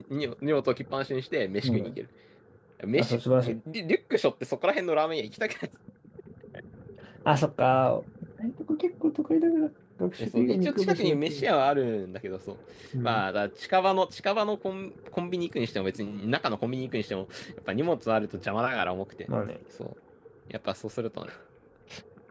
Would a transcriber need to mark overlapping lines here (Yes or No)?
Yes